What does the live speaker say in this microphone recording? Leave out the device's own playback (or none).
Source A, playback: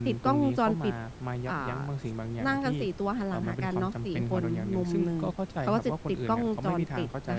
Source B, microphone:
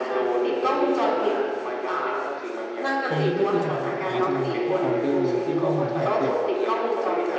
ตรงนี้ก็คือจะหายไปเลยใช่ไหมครับพวกออเดอร์ที่เข้ามาเนี่ยคือ